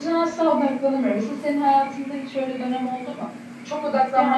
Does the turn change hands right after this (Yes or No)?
No